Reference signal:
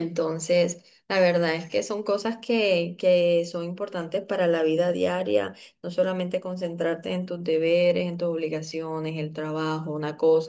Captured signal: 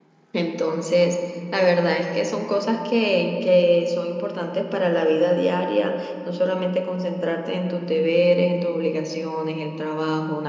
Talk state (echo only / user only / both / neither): echo only